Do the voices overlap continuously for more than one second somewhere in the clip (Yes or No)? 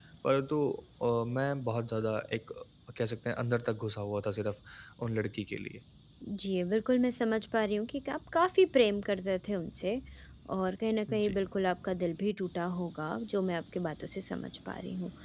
No